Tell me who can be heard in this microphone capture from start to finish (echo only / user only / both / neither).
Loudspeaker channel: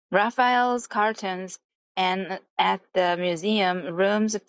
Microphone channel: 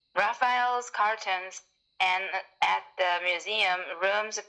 echo only